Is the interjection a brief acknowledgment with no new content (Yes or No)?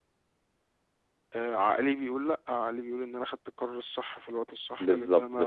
No